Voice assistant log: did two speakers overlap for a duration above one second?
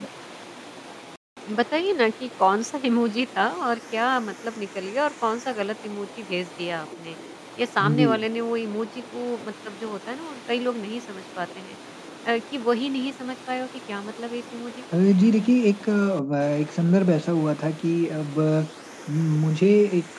No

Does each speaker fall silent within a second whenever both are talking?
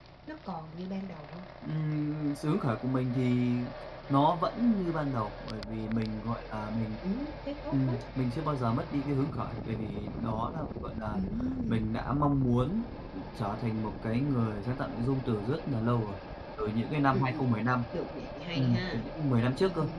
Yes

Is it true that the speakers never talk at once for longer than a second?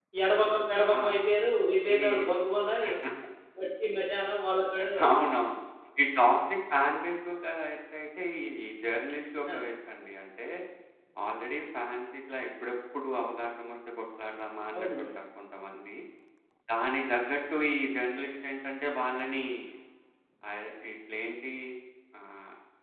Yes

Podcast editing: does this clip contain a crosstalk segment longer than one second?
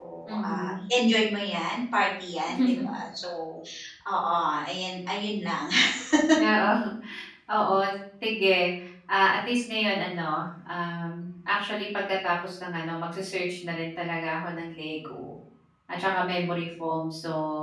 No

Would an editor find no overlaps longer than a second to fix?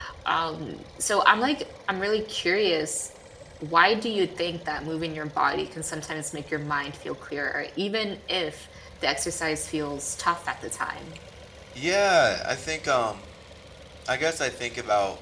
Yes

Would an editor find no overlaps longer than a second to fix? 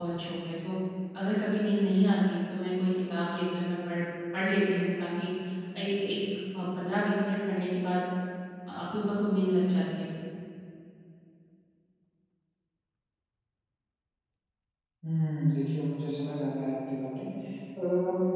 Yes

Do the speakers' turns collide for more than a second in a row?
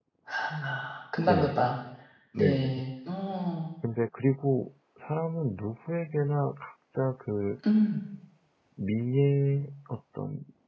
No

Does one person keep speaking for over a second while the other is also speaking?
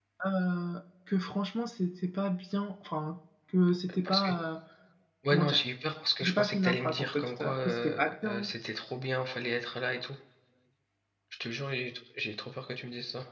Yes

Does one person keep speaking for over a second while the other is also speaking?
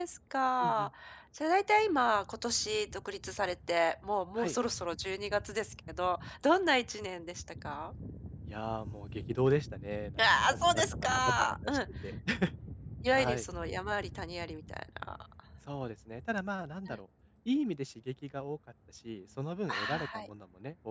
Yes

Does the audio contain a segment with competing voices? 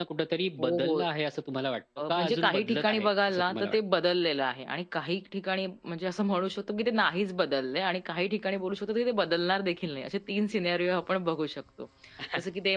Yes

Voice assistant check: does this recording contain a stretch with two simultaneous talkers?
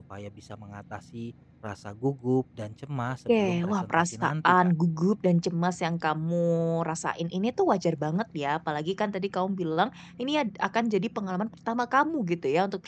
Yes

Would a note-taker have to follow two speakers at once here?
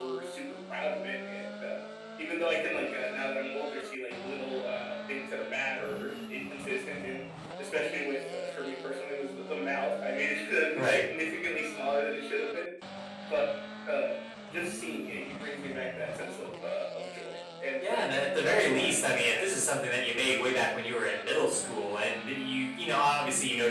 Yes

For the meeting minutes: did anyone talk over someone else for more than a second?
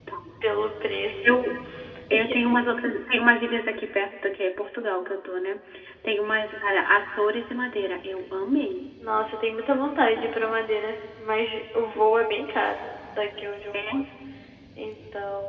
No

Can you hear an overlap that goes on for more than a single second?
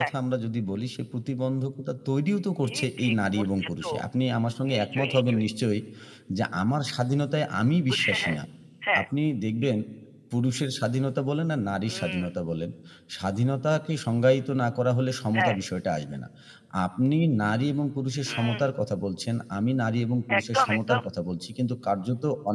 Yes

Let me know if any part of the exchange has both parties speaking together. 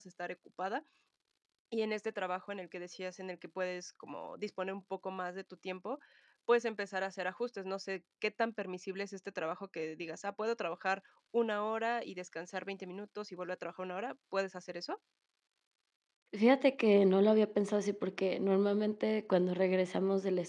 No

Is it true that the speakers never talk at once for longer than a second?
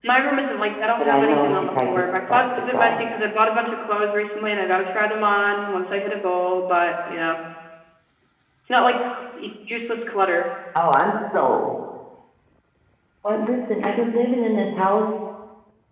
No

